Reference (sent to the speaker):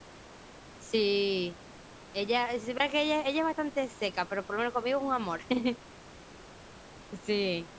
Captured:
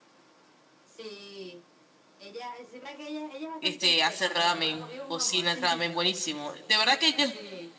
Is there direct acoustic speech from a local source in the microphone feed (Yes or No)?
Yes